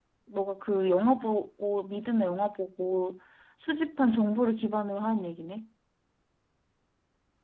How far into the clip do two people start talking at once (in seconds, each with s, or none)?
none